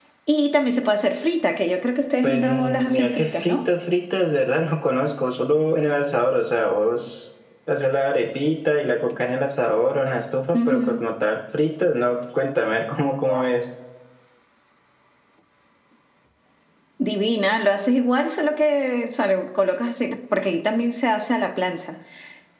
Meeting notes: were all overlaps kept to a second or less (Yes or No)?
No